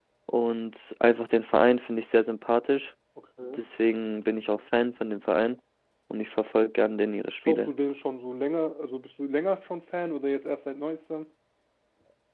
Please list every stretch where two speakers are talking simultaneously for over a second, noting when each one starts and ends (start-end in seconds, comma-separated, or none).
none